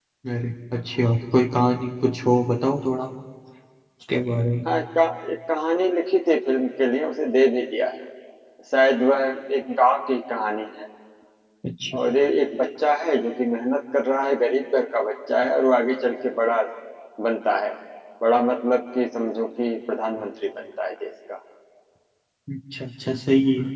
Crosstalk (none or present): none